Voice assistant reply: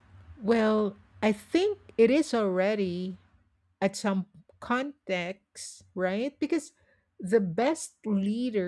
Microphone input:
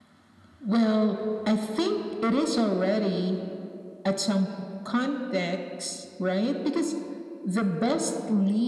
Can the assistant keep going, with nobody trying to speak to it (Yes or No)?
Yes